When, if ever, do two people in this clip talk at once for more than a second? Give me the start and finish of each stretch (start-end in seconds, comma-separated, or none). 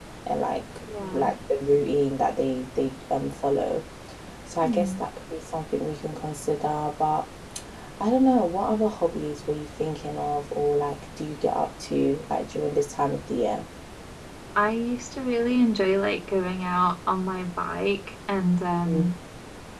none